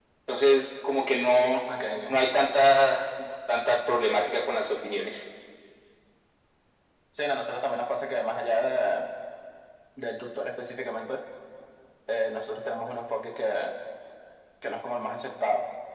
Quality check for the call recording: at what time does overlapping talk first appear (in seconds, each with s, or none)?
none